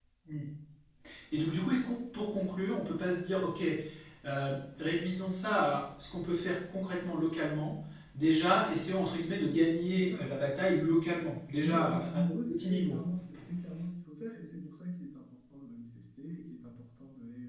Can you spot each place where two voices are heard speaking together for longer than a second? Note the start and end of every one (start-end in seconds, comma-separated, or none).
11.6-13.0